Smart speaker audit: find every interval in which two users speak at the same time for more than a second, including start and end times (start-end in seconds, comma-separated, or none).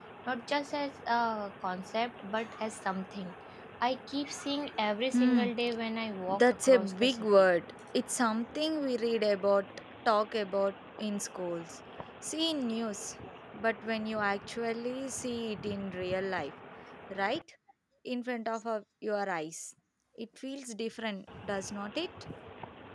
6.3-7.5